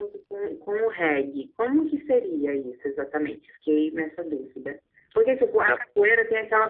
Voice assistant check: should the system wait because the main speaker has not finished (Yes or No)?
Yes